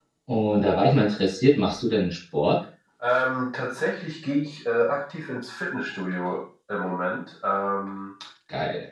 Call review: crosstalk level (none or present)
none